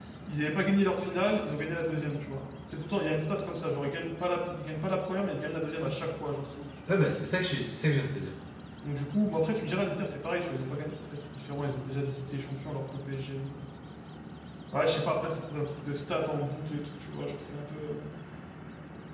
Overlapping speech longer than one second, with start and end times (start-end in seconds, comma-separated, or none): none